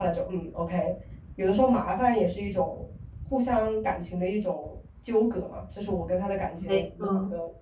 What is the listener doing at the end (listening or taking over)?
listening